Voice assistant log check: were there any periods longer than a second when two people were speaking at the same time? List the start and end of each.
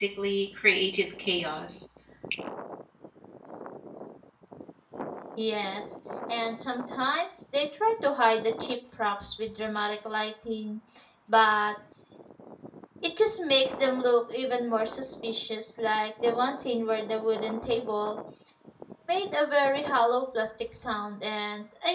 none

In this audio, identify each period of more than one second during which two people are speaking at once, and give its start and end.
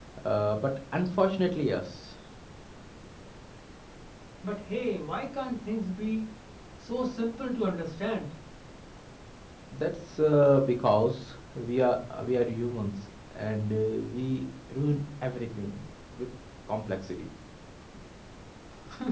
none

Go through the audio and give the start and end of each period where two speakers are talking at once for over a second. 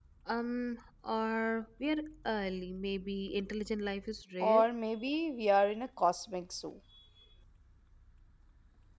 none

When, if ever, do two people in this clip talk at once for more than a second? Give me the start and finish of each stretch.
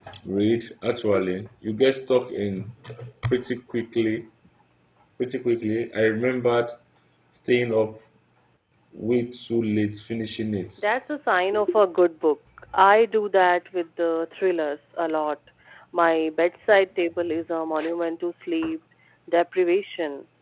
none

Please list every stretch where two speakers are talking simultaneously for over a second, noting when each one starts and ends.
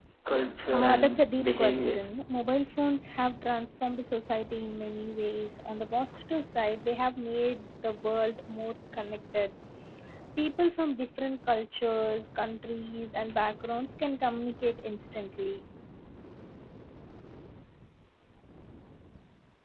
0.7-2.0

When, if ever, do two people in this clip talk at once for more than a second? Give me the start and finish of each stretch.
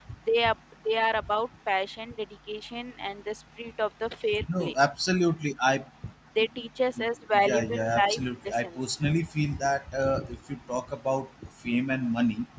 7.4-8.8

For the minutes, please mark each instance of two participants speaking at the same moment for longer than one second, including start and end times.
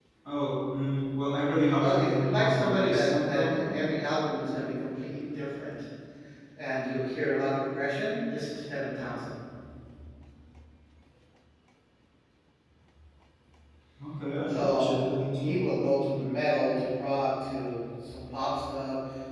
1.8-3.6

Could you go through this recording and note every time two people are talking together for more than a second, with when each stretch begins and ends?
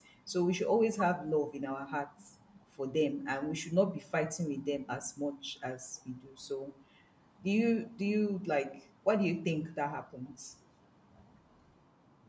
none

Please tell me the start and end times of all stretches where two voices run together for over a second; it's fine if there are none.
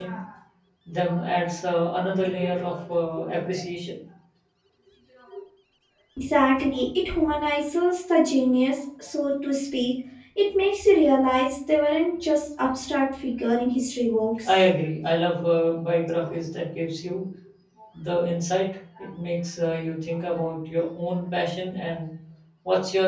none

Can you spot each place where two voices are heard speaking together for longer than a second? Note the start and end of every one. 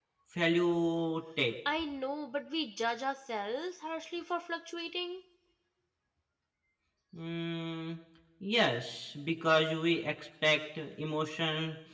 none

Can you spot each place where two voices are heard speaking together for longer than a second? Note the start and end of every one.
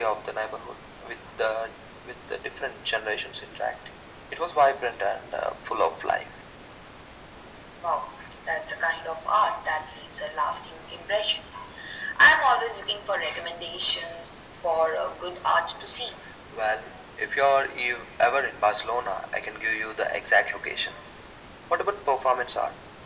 none

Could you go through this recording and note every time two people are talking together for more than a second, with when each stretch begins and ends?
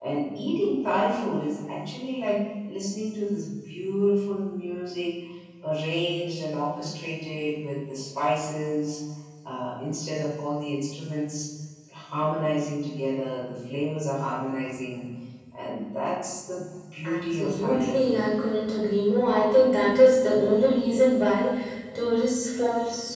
17.0-18.3

